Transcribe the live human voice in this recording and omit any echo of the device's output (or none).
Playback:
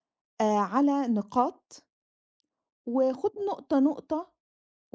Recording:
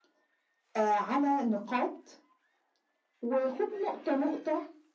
none